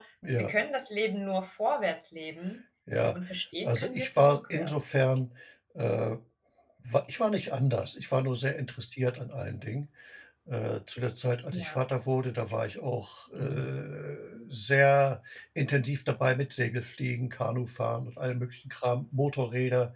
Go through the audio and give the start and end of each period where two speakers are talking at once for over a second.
3.6-4.9

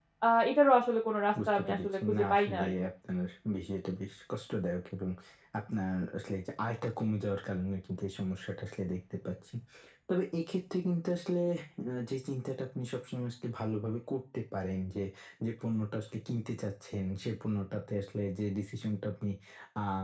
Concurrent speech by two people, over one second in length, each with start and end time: 1.5-2.7

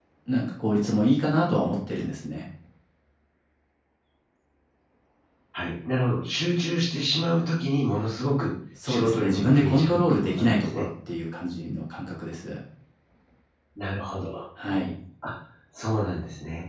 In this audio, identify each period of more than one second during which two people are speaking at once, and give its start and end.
8.8-10.8

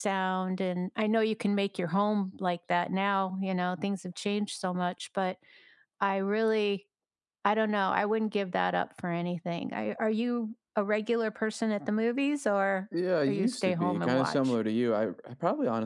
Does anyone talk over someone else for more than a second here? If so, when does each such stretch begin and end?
13.3-14.5

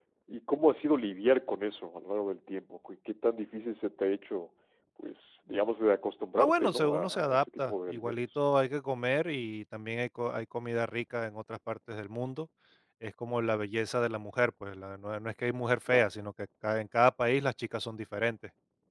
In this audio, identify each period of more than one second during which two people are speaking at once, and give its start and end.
6.4-8.2

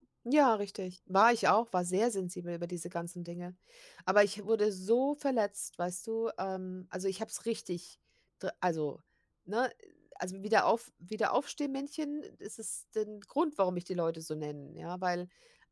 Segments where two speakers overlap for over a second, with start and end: none

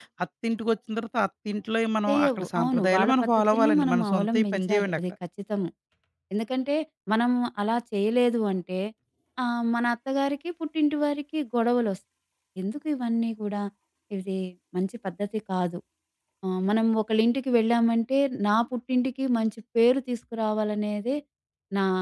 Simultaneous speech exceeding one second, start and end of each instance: 2.1-5.0

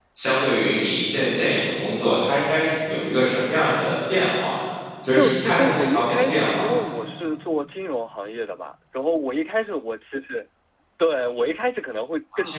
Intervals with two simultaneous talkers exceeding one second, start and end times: 5.1-6.7

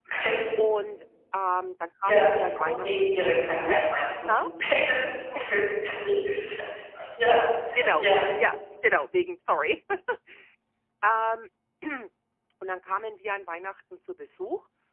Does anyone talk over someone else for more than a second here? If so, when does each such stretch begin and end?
2.1-3.8

